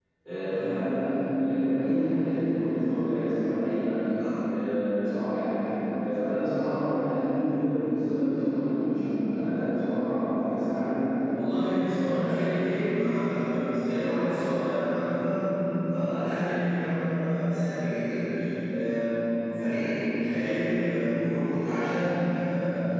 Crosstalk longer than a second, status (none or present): none